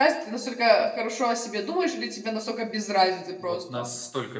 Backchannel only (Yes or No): No